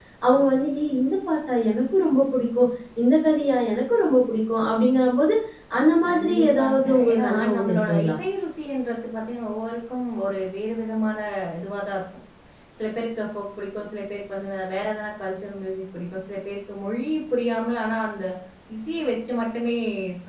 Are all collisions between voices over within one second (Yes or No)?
No